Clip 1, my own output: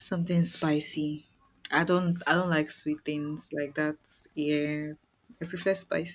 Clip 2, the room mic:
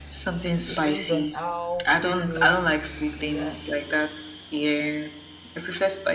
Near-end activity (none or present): present